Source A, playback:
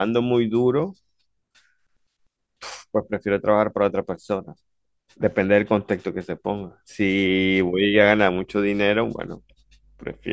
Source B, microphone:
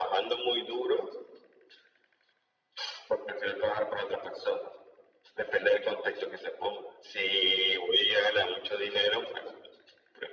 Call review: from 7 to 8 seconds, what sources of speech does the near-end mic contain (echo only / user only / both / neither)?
echo only